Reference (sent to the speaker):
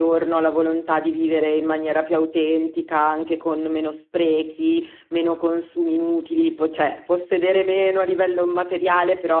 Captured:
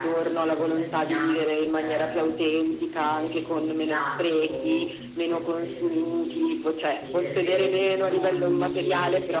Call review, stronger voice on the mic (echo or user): echo